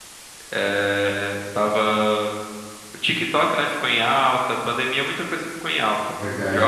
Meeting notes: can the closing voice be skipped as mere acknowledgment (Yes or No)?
Yes